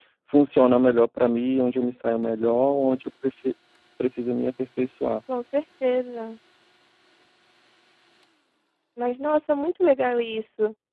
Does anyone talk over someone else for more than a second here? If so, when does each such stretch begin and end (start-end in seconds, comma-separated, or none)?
none